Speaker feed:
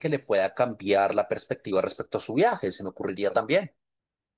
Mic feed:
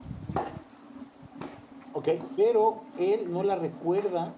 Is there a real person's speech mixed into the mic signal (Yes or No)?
Yes